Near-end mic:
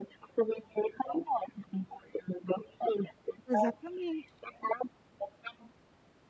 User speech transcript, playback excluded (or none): exatamente.